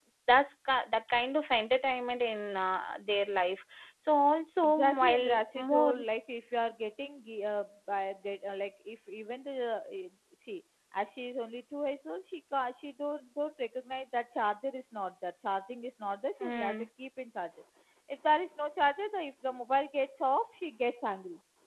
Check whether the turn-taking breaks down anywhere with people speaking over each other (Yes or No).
Yes